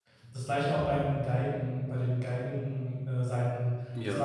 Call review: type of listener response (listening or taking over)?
listening